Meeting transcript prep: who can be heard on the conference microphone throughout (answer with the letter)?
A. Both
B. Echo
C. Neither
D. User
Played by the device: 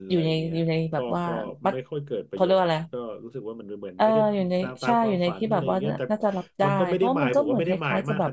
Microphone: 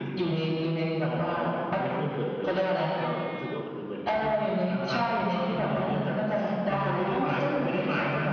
B